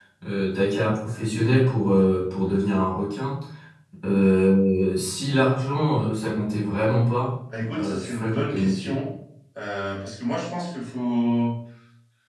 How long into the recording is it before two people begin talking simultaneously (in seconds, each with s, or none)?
7.5 s